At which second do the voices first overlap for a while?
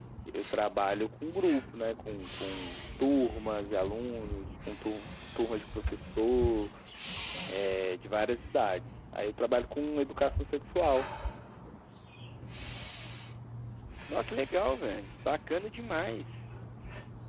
none

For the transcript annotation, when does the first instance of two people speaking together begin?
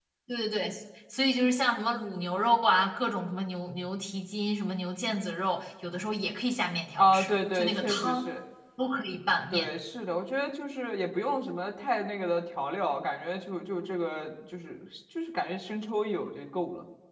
7.0 s

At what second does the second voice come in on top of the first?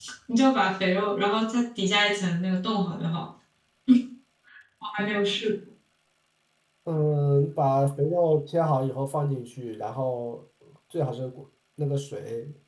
none

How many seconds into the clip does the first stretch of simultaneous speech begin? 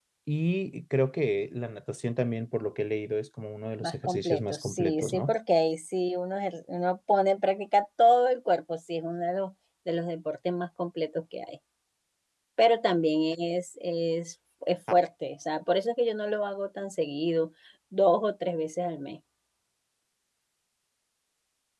3.8 s

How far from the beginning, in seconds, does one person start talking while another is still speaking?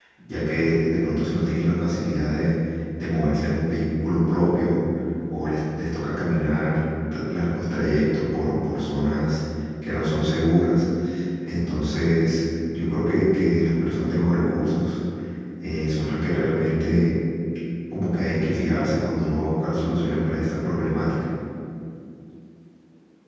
none

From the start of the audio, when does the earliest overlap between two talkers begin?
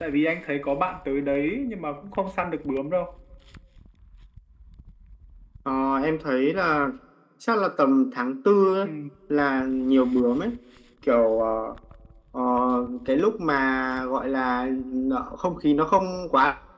none

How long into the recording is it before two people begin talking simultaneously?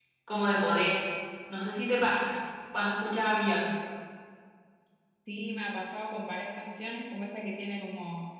none

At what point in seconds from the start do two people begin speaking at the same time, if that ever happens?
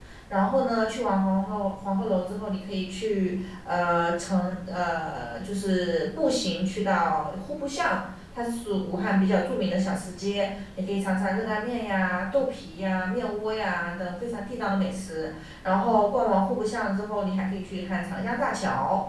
none

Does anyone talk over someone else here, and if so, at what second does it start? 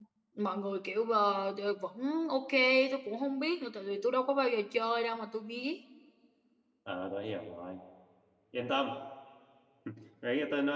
none

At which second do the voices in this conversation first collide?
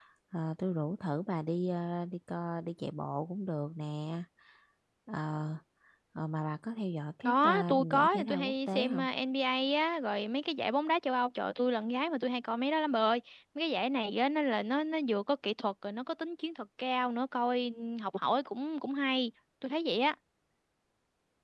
7.2 s

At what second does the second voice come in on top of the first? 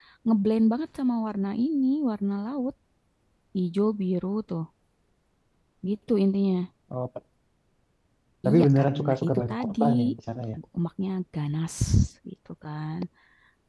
8.5 s

